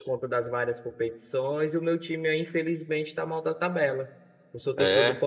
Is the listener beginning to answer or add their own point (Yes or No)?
No